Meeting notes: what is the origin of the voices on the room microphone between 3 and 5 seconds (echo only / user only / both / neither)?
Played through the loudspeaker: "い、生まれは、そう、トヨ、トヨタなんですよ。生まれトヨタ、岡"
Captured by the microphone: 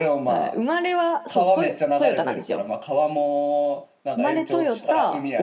both